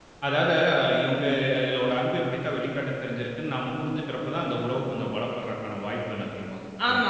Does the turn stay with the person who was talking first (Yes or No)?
No